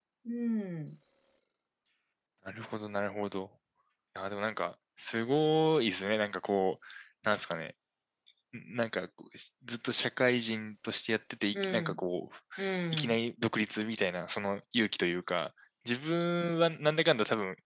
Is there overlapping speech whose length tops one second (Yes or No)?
No